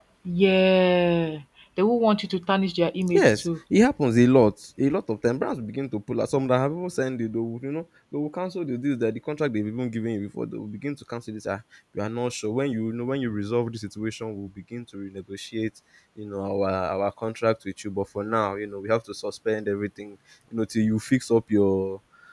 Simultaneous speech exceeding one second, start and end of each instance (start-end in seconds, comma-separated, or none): none